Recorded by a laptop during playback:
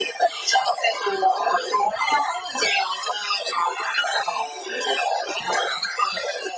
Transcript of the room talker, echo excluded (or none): none